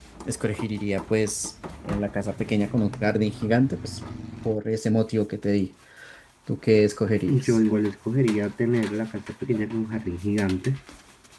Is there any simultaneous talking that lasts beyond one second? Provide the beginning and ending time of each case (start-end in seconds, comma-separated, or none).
none